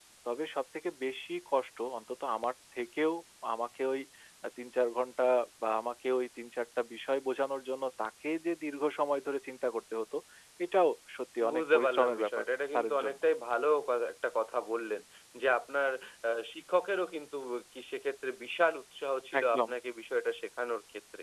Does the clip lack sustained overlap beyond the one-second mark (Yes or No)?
No